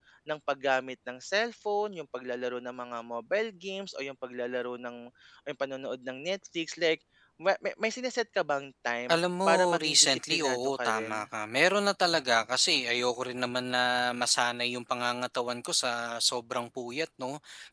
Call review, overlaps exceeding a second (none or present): present